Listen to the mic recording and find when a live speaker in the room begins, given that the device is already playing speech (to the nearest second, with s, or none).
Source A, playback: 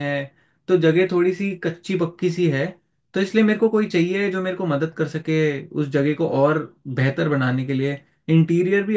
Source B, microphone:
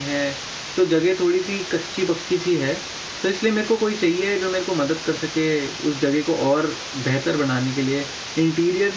none